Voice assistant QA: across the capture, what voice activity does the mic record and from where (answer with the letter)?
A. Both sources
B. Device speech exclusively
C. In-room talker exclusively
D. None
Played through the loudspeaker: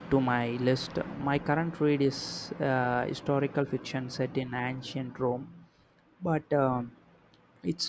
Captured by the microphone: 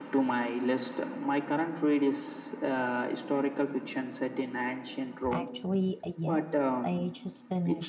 A